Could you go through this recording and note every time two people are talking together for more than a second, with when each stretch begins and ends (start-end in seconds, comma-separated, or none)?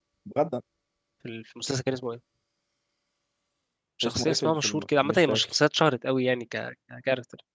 4.0-5.6